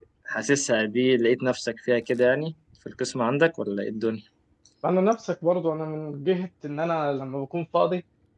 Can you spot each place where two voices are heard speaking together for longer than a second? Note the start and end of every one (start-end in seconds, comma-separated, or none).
none